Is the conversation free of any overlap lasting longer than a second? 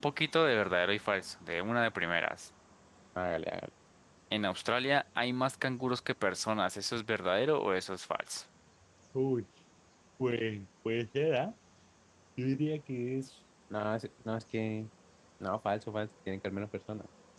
Yes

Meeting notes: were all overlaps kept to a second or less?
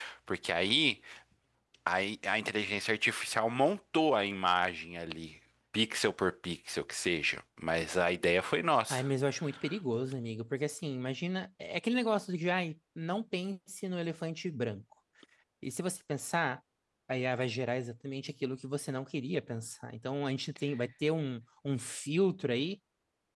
Yes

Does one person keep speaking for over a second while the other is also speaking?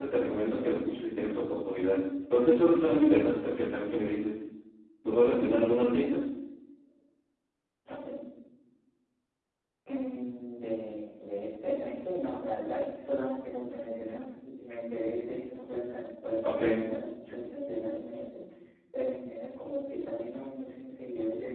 No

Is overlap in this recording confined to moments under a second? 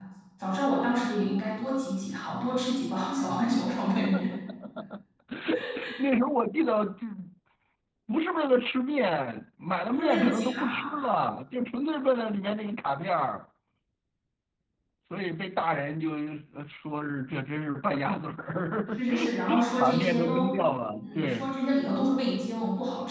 No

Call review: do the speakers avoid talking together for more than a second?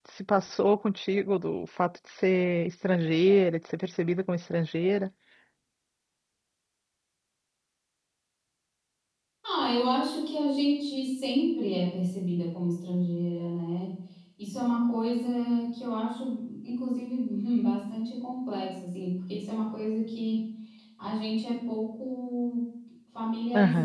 Yes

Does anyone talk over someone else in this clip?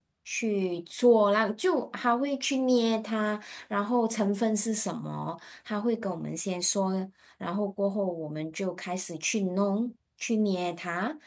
No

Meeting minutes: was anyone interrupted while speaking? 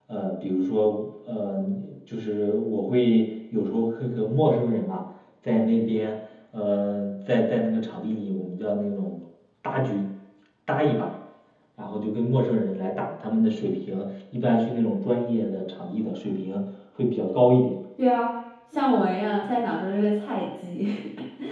No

